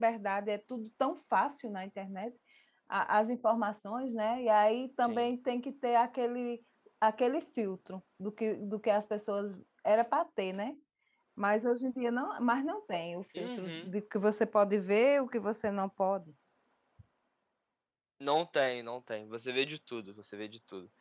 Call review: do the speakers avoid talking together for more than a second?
Yes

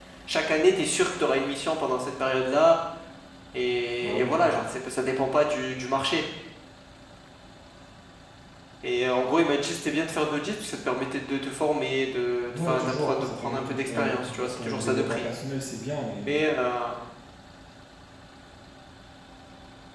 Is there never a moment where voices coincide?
No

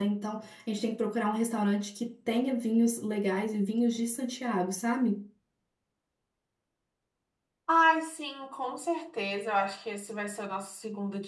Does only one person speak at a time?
Yes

